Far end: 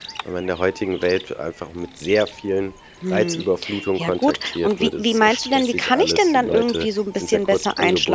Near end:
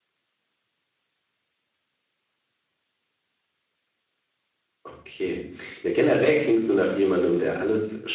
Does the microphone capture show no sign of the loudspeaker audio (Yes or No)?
Yes